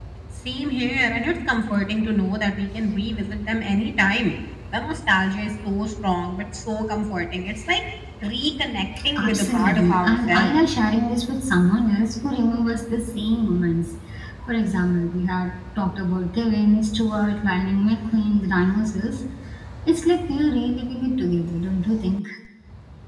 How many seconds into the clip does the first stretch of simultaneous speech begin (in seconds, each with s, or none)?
9.2 s